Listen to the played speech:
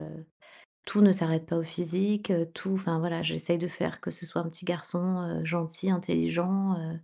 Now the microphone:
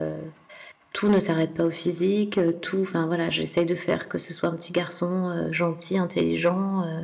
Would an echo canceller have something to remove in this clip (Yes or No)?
Yes